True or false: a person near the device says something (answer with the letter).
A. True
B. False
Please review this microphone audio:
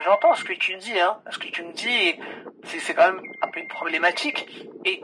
B